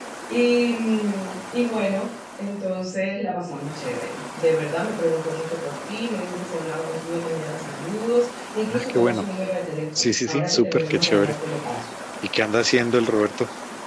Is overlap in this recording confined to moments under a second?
No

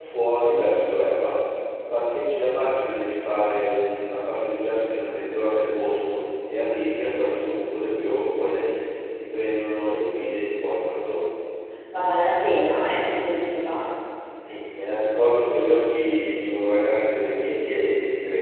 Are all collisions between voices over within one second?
Yes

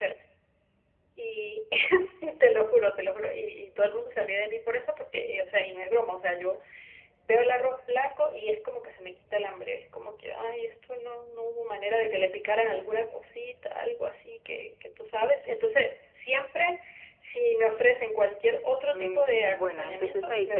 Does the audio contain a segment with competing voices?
Yes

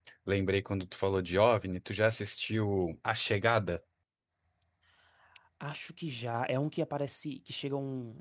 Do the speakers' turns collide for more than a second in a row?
No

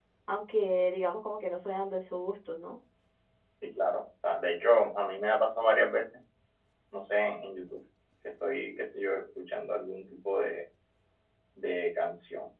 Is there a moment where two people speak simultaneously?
No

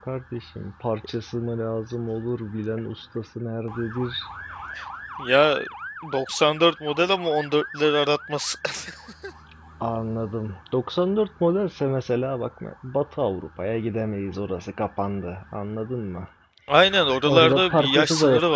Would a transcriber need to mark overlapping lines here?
Yes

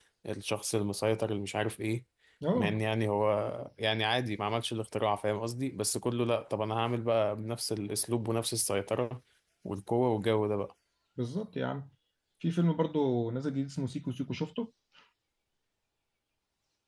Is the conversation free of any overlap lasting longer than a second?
Yes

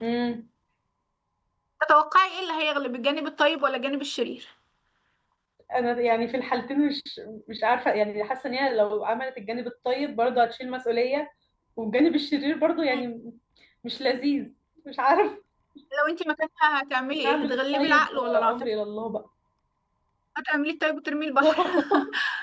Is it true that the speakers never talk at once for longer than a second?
No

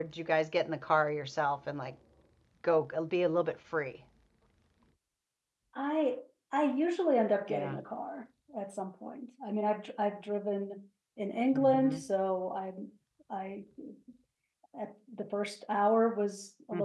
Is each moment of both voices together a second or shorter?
Yes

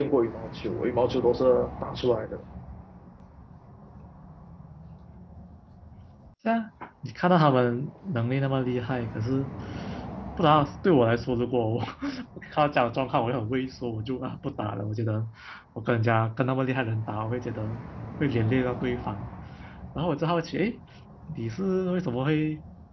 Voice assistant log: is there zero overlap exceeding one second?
Yes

